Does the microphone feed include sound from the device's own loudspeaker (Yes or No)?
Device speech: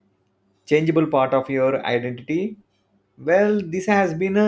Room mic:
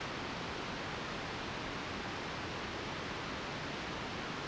No